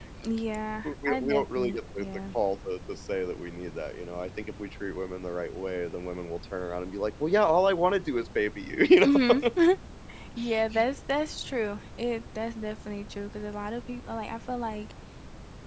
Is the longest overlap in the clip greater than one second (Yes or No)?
Yes